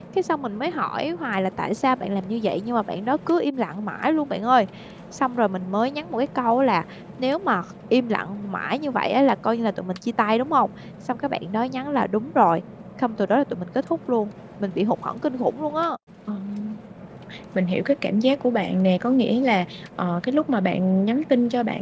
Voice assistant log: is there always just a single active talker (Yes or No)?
Yes